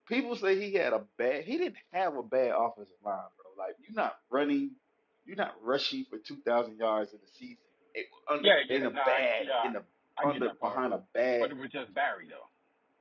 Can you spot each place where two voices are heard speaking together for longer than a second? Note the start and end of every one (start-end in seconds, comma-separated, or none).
8.4-9.7